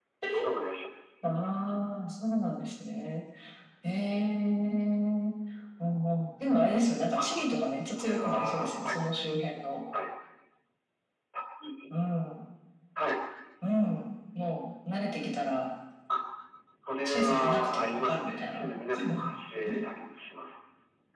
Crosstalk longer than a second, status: present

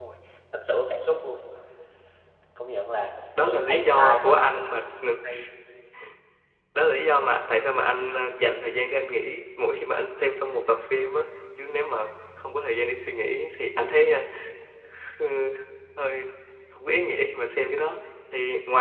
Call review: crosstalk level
present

